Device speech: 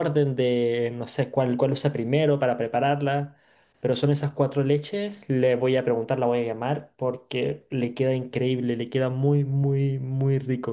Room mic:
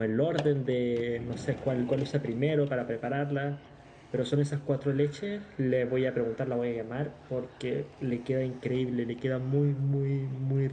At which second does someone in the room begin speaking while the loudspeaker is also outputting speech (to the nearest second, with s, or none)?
none